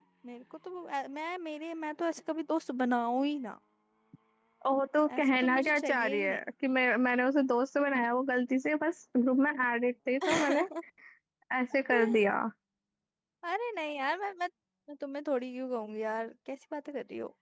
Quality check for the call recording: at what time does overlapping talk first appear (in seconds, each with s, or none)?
5.2 s